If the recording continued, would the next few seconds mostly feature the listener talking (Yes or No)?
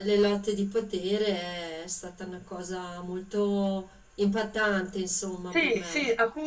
Yes